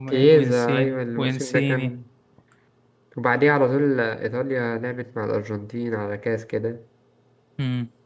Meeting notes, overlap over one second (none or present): present